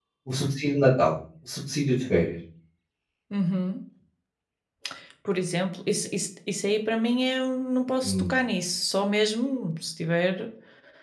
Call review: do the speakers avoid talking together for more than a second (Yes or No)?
Yes